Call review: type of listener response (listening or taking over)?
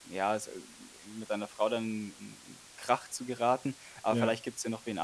listening